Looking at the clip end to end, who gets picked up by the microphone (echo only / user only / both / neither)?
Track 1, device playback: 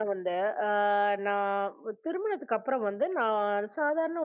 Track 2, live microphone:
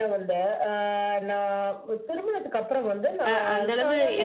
both